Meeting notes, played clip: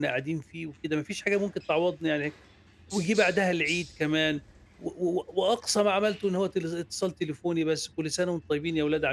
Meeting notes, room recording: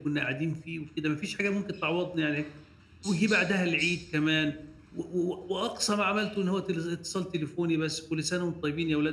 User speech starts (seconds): none

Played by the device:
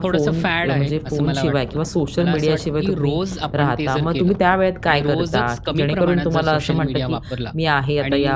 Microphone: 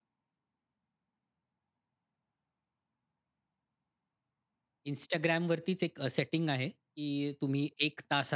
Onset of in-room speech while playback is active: 4.9 s

